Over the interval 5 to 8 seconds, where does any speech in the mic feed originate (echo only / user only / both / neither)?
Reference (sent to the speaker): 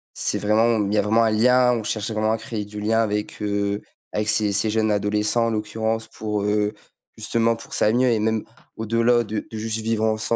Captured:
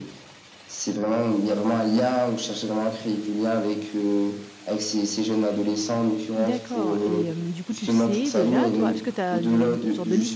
both